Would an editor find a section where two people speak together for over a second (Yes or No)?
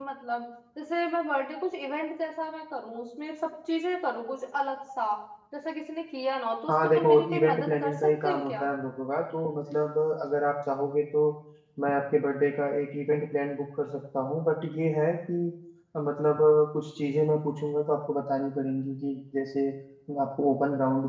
Yes